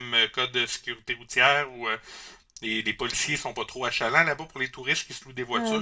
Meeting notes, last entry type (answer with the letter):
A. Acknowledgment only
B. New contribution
B